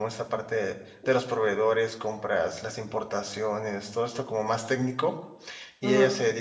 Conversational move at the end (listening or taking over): listening